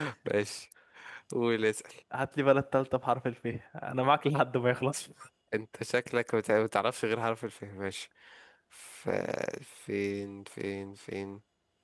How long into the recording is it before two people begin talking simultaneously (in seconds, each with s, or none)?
none